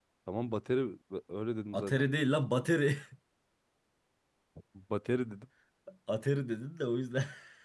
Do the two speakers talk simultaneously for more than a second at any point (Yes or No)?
No